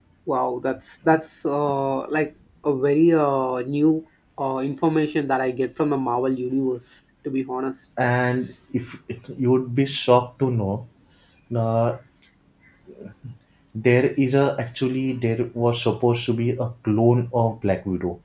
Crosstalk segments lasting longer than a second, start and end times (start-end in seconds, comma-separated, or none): none